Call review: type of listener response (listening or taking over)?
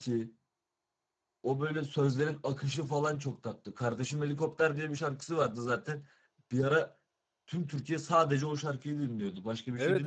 taking over